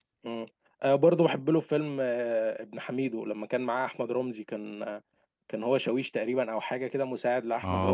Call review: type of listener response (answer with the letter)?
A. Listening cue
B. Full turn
B